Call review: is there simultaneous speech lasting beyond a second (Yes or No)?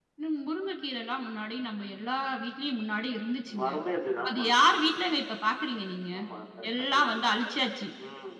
No